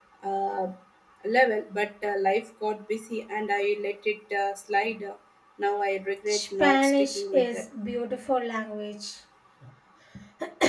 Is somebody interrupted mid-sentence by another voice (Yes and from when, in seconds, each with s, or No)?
Yes, from 6.3 s